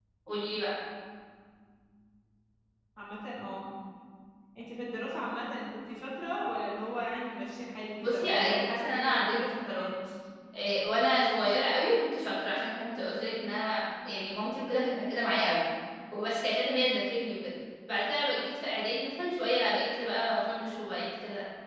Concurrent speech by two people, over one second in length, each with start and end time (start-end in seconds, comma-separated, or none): 8.0-9.9